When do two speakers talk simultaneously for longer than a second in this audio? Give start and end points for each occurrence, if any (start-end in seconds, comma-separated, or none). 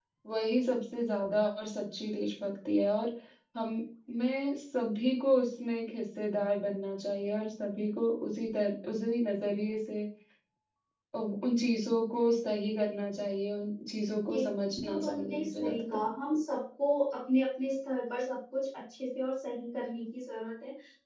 14.8-16.1